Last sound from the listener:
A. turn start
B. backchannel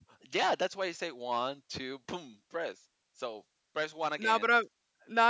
A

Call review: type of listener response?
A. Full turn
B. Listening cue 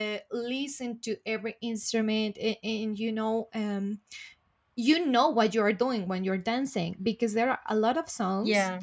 B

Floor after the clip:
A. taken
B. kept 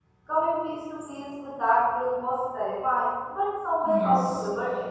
A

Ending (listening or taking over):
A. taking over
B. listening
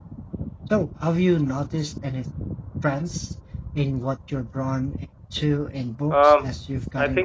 A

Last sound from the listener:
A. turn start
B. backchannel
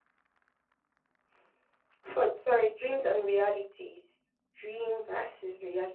B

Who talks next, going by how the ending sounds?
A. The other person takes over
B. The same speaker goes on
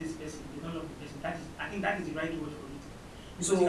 A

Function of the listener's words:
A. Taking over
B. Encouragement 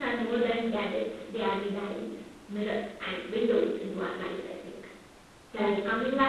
B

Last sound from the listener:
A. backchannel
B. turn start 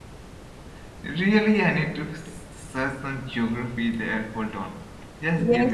B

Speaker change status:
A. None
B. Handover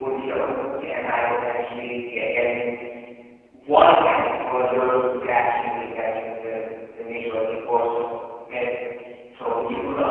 A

